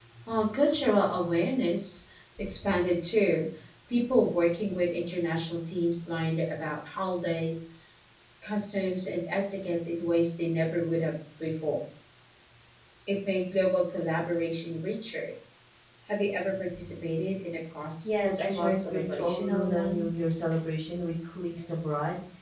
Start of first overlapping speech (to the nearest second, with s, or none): 18 s